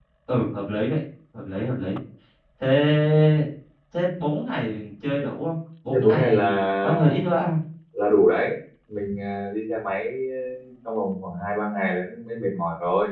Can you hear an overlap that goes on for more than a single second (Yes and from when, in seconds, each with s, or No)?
Yes, from 5.9 s